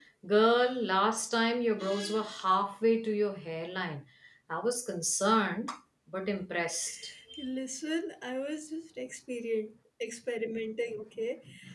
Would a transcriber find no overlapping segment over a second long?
Yes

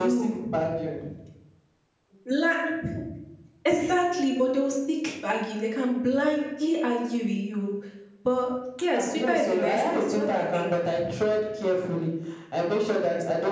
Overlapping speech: Yes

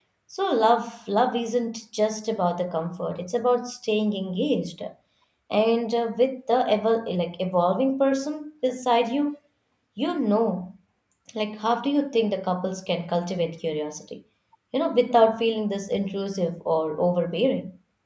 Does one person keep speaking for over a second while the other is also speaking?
No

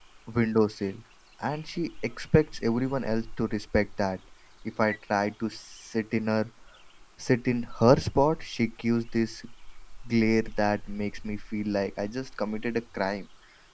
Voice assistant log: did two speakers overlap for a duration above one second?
No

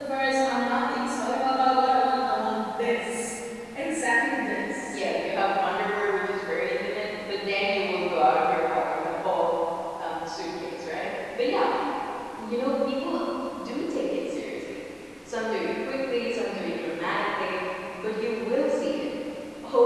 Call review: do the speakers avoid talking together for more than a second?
Yes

